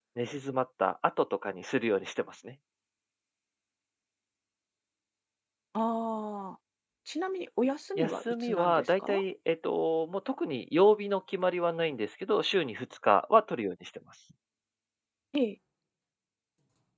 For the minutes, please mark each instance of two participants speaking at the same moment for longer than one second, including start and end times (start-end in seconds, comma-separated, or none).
8.0-9.2